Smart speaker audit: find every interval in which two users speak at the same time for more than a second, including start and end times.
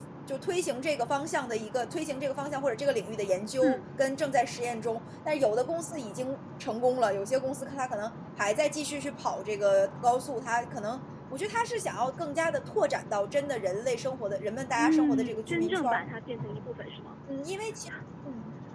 14.8-16.0

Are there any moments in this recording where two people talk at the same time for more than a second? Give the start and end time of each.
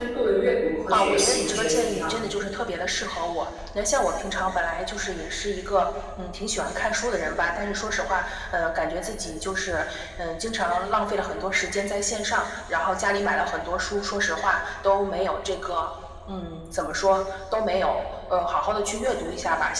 0.9-2.3

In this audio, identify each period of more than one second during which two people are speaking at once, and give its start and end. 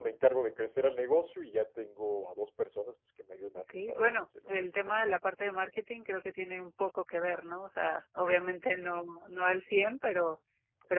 3.7-5.1

